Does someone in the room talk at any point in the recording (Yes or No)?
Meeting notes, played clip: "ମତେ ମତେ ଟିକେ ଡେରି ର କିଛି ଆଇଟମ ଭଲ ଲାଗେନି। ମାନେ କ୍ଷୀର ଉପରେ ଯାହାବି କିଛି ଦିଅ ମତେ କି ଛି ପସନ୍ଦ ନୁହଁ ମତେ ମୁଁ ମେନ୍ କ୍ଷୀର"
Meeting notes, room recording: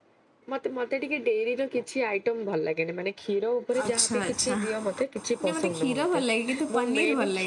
Yes